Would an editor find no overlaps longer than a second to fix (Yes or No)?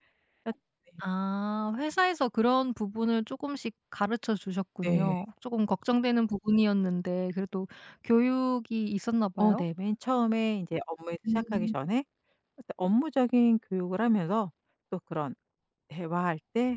Yes